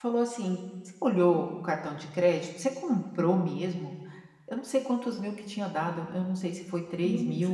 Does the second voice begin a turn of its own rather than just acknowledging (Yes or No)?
No